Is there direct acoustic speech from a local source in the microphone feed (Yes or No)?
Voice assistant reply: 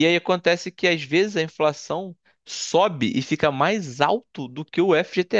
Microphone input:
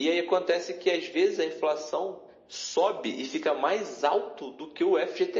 No